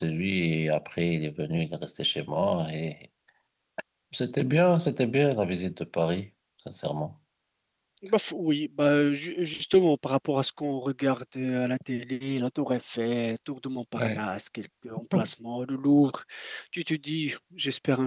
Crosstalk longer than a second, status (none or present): none